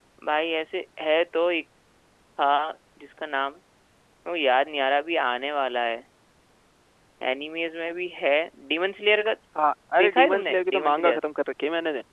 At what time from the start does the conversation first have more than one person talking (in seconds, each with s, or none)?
10.0 s